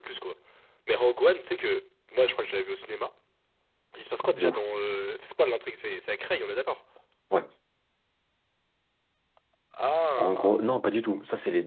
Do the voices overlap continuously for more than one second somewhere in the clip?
No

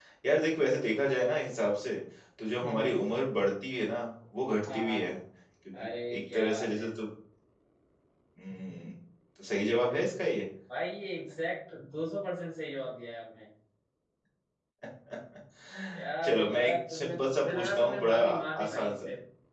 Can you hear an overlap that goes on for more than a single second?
Yes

